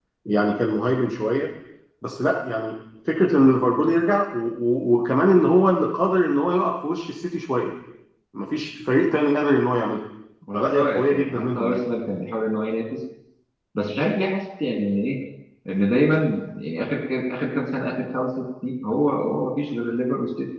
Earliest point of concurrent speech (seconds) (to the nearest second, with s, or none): 11 s